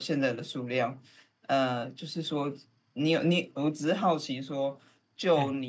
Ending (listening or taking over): listening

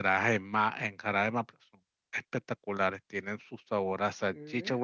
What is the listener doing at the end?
listening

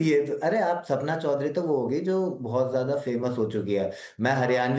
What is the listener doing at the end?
listening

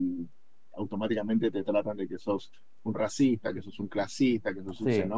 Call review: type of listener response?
listening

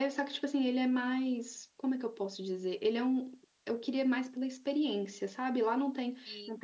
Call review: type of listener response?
listening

